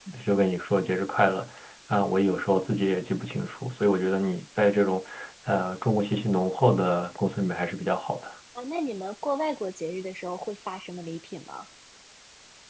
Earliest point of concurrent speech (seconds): none

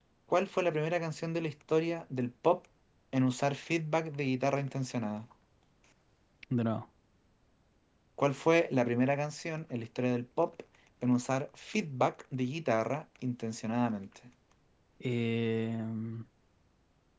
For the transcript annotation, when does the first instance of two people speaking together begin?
none

